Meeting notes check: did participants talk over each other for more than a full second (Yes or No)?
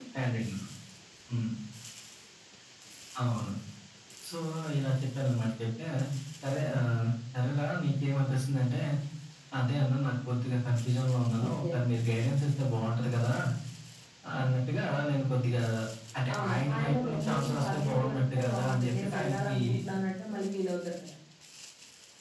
Yes